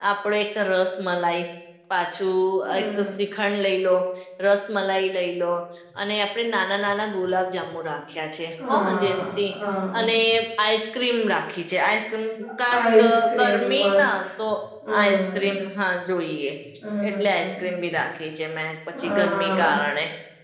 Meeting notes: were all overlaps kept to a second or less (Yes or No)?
No